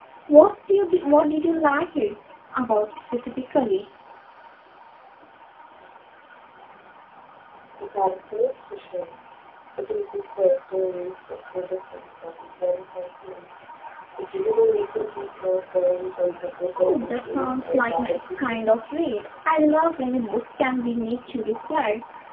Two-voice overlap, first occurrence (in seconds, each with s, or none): 16.8 s